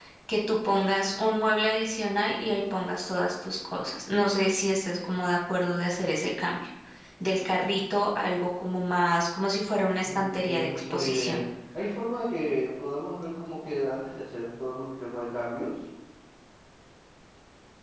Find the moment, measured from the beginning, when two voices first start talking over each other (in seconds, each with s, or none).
10.0 s